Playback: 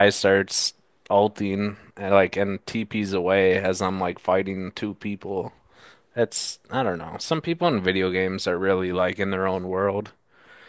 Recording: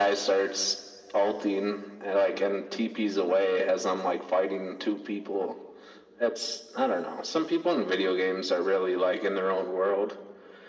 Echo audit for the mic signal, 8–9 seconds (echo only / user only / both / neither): echo only